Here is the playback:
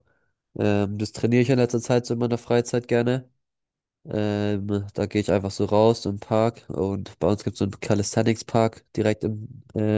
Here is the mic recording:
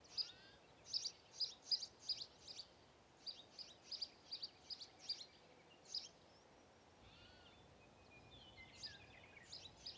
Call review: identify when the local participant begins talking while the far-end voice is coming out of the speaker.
none

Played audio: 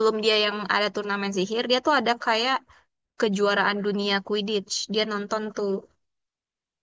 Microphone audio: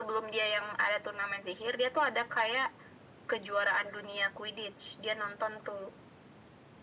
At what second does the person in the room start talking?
none

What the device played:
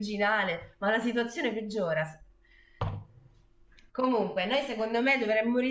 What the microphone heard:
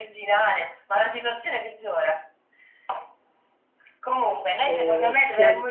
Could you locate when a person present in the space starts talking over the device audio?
4.7 s

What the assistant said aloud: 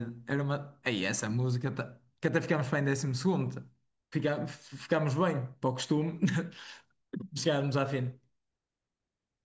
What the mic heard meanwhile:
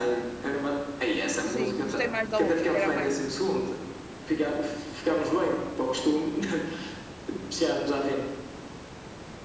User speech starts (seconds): 1.4 s

